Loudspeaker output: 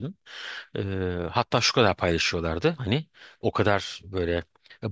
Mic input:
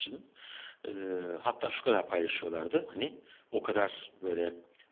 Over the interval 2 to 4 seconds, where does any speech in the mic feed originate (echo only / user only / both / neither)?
echo only